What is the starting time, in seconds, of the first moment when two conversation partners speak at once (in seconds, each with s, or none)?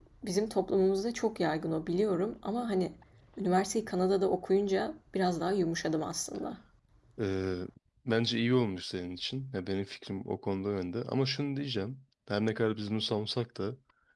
none